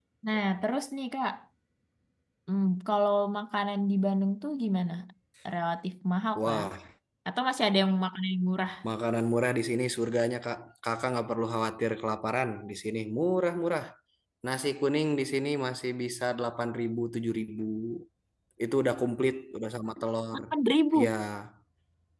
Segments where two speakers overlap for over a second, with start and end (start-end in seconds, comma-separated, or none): none